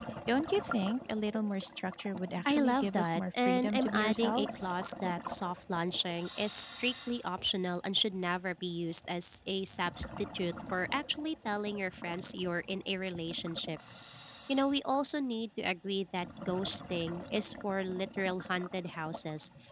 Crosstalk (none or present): present